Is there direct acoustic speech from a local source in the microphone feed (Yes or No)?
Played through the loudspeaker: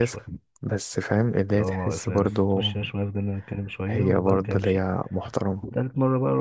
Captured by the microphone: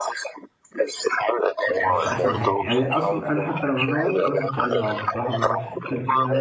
Yes